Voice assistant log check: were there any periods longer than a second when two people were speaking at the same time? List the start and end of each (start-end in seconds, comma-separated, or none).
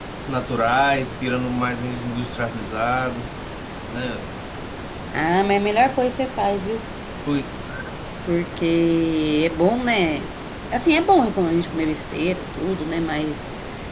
none